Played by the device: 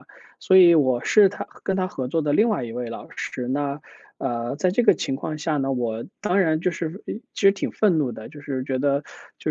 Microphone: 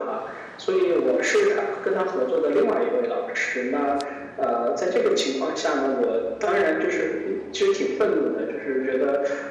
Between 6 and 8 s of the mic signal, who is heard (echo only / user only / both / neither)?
echo only